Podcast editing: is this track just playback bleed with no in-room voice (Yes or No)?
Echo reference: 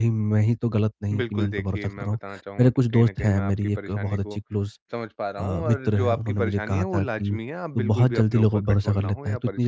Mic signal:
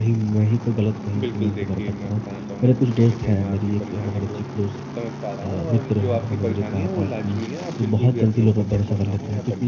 Yes